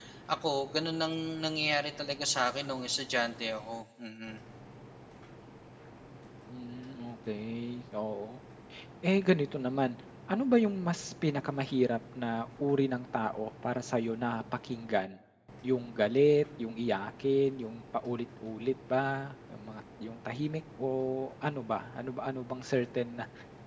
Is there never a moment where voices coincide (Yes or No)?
Yes